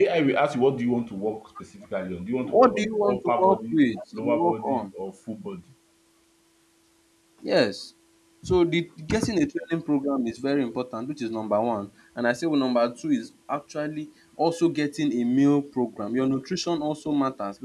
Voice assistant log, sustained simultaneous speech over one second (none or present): present